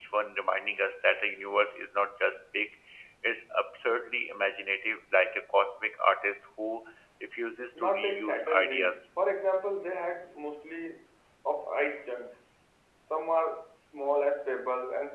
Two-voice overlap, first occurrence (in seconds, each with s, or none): 7.8 s